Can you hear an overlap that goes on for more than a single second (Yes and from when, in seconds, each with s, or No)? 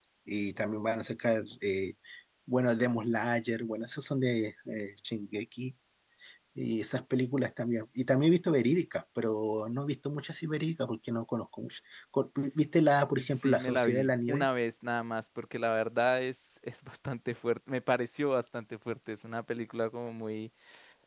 Yes, from 13.2 s